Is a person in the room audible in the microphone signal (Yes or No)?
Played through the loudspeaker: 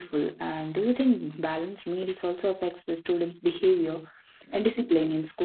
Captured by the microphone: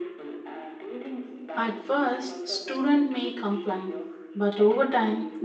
Yes